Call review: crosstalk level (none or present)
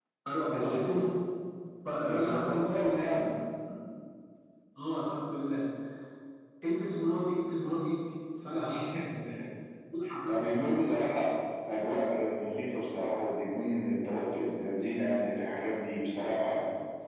present